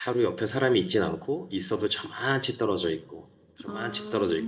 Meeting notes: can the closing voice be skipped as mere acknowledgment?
Yes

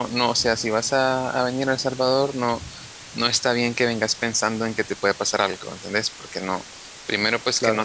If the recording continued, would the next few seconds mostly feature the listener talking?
No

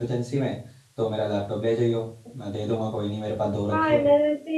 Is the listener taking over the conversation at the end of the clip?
Yes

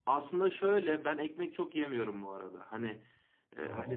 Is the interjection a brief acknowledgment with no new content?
Yes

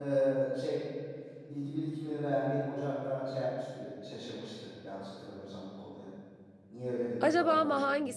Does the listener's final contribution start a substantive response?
Yes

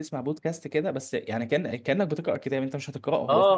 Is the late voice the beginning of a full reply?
Yes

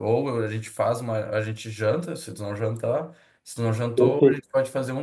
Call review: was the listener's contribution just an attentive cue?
Yes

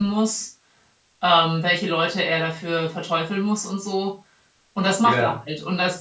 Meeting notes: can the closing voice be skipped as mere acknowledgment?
Yes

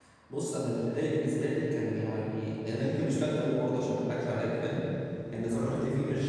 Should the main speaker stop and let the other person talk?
No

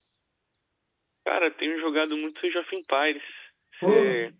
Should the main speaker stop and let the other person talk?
Yes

